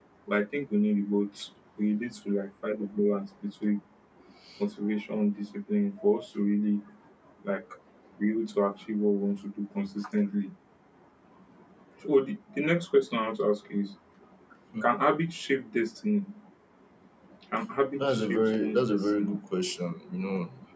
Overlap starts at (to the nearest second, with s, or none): 18 s